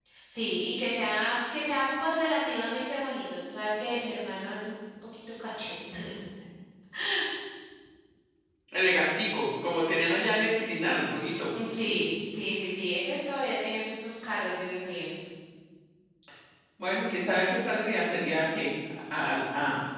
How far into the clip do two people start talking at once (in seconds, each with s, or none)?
none